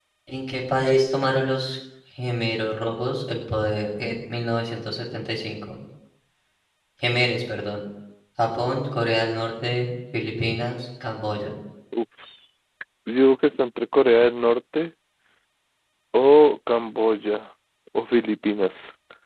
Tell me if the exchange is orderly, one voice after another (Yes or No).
Yes